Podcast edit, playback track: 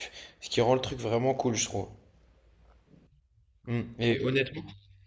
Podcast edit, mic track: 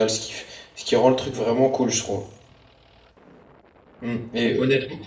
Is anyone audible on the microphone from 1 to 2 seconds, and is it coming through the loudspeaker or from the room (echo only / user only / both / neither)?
both